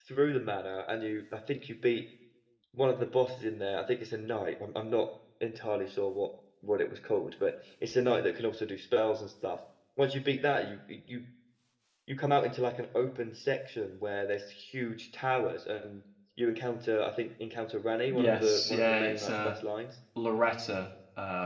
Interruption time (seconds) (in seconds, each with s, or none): 18.1 s